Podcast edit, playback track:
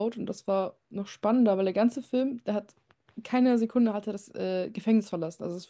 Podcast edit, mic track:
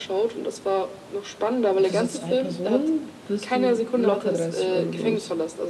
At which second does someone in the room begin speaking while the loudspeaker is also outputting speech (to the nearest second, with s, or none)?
2 s